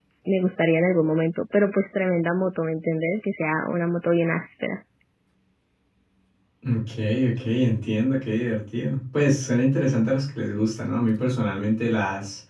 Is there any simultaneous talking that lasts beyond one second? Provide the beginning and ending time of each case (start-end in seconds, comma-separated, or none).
none